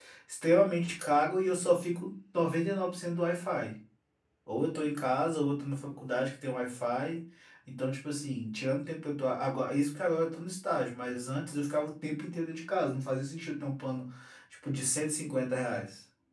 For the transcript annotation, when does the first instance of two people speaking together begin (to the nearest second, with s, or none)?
none